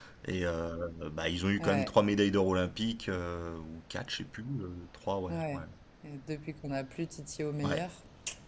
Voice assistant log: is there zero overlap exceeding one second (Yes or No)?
Yes